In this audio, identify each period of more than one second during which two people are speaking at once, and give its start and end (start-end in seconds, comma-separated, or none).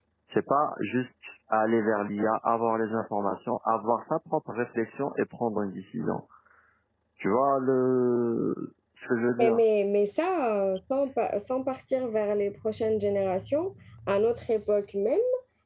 none